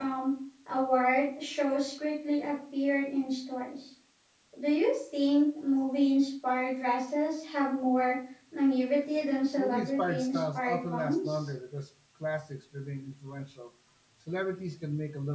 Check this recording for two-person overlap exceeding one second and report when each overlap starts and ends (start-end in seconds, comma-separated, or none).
9.6-11.3